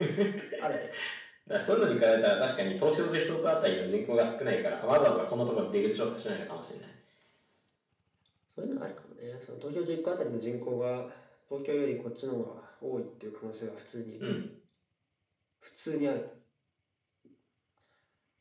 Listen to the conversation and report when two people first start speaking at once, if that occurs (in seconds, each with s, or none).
none